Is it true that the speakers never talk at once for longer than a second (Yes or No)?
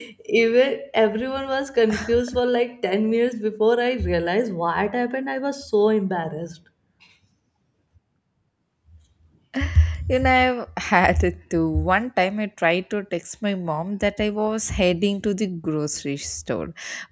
Yes